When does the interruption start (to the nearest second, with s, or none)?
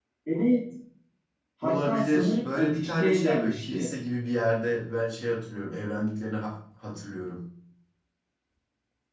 2 s